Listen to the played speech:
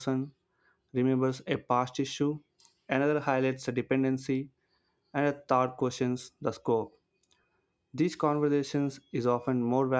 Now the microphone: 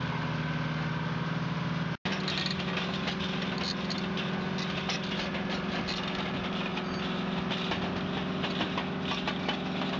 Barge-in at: none

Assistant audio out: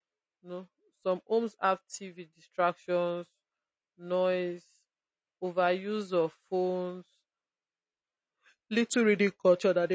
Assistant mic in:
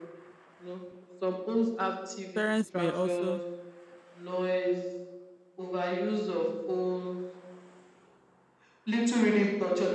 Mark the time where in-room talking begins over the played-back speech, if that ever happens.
2.3 s

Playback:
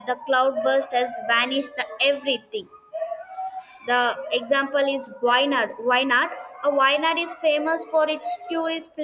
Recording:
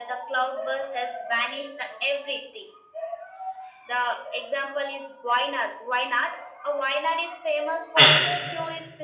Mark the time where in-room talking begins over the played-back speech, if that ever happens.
8.0 s

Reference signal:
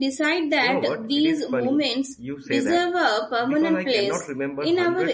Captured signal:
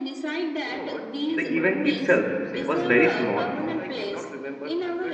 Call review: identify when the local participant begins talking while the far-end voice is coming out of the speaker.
1.3 s

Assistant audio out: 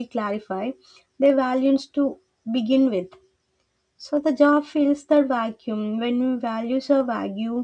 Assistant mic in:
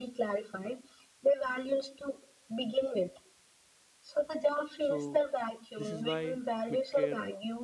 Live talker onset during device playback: 4.8 s

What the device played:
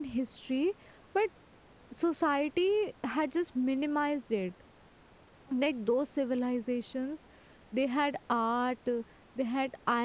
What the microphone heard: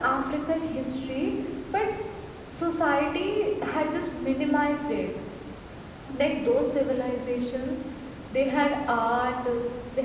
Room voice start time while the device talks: none

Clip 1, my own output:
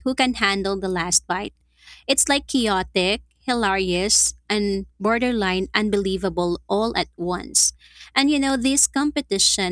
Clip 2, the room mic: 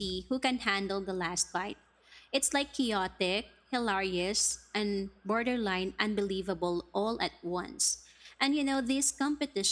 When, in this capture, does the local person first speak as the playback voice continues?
none

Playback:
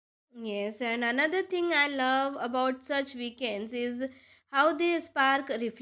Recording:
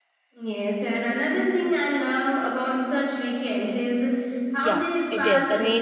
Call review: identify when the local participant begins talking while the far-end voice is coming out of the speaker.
4.6 s

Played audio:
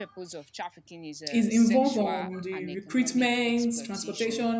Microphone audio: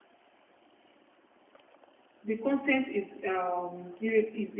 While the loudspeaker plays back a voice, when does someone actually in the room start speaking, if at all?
2.2 s

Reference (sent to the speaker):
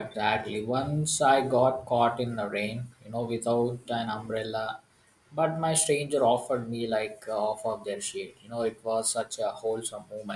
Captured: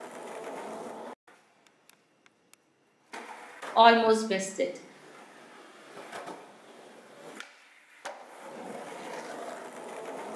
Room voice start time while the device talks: 3.7 s

